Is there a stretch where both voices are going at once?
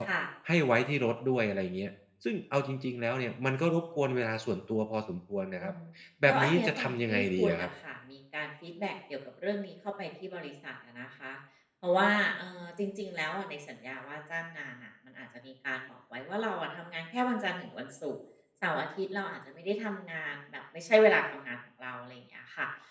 Yes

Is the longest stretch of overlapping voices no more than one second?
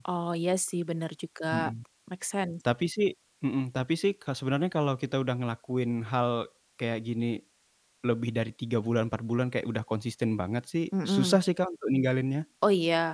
Yes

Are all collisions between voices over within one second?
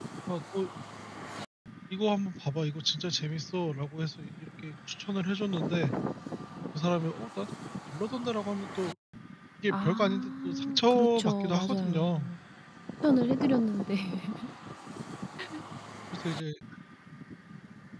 No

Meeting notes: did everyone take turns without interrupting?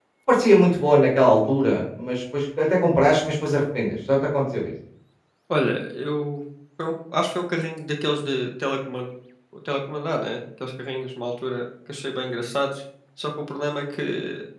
Yes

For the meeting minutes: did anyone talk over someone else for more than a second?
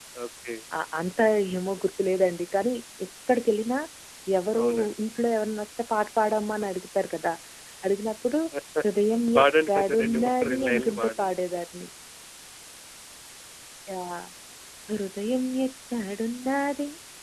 Yes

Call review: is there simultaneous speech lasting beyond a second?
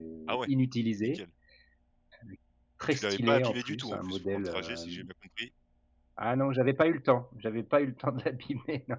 Yes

